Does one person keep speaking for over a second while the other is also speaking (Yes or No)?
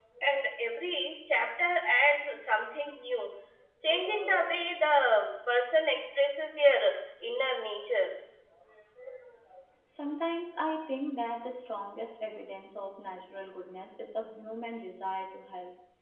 No